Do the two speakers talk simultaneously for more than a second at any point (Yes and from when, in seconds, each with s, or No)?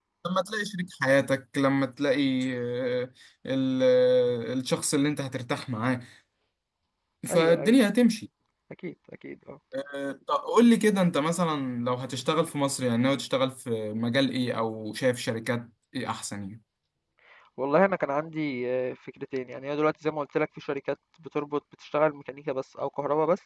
No